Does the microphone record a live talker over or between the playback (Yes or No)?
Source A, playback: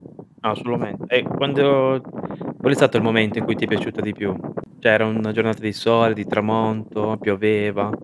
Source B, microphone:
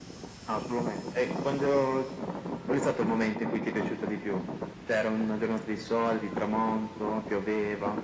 No